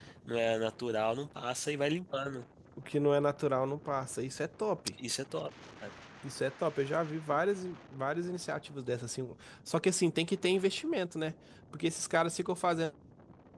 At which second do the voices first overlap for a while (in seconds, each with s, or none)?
none